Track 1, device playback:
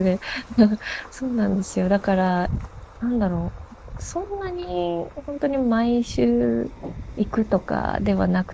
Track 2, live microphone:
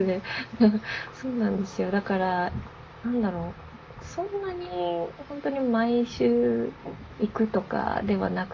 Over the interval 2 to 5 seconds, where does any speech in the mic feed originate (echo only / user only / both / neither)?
echo only